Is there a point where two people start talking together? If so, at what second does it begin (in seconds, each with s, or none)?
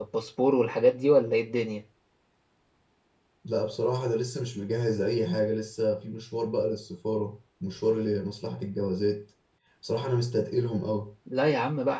none